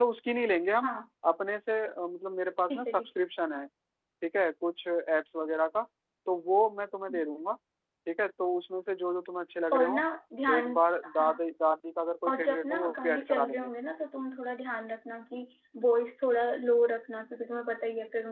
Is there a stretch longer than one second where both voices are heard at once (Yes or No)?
Yes